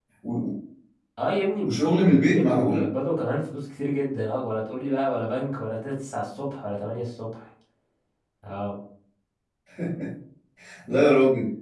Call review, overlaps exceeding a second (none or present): present